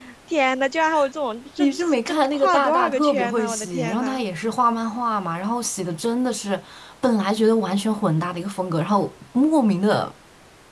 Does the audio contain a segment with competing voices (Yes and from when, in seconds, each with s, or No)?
Yes, from 1.6 s